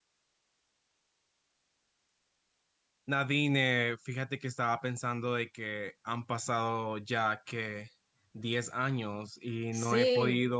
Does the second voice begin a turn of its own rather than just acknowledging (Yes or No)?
No